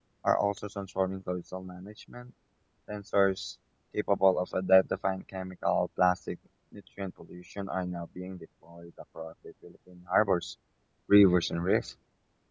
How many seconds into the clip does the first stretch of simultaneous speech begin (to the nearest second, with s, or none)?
none